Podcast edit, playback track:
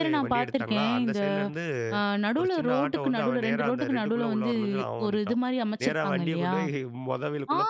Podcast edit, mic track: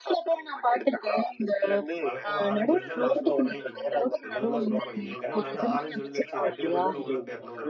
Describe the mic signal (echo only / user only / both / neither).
both